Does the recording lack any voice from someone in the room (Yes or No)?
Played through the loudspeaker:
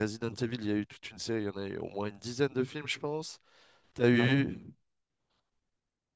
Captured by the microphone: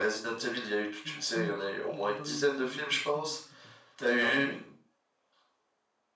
No